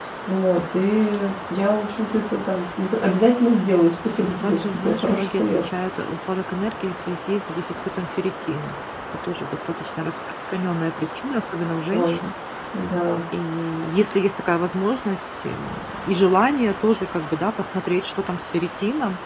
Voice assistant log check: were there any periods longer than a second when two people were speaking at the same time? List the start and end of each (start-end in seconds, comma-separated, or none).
4.1-5.6